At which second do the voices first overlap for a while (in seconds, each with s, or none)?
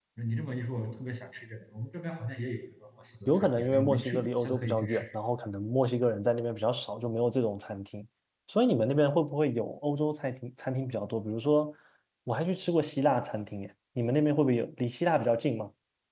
3.3 s